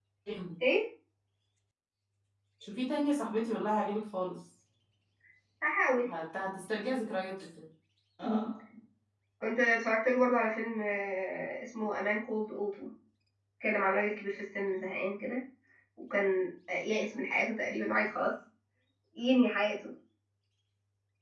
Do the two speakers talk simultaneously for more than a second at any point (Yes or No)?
No